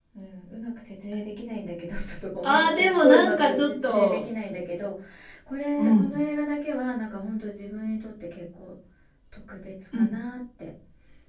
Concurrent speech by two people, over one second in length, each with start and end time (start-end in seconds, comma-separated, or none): 2.4-4.2